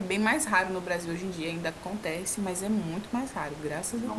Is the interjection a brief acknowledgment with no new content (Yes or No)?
No